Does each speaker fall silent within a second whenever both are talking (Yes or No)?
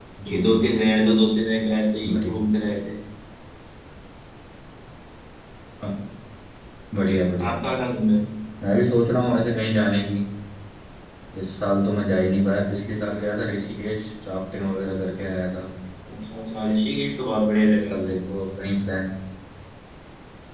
Yes